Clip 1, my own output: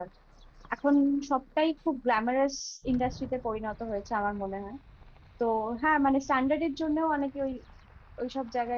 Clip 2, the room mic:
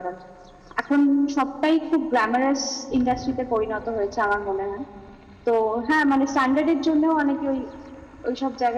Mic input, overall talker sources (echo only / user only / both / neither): echo only